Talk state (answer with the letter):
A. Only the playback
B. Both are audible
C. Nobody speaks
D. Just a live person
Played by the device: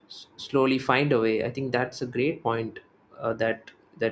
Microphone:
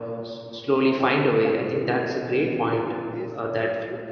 B